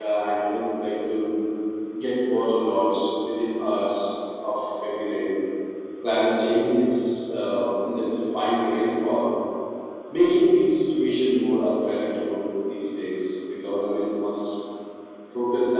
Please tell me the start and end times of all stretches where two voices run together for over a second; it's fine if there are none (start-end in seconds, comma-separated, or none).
none